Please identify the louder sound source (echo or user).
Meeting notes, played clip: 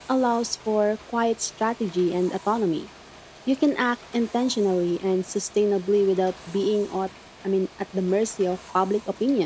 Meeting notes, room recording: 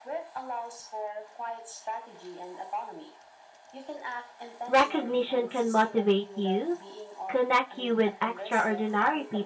user